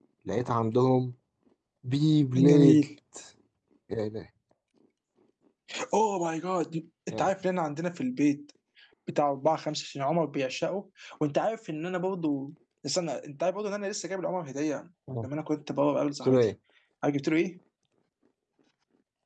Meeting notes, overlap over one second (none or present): none